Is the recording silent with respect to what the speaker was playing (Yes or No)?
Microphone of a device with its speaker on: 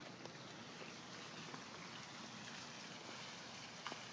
Yes